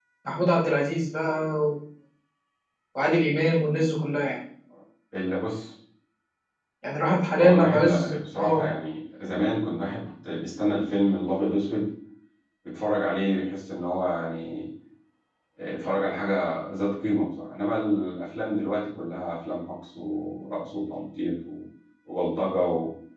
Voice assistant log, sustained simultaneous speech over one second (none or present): present